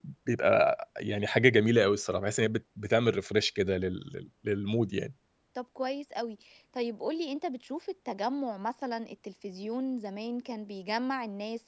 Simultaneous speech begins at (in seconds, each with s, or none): none